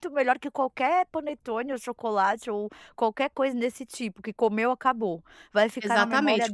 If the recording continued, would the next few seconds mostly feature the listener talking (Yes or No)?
Yes